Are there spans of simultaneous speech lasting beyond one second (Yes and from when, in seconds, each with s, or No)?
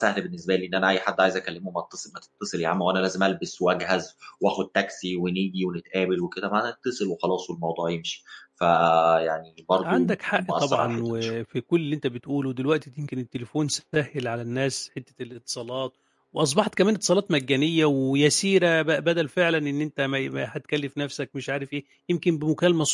Yes, from 9.8 s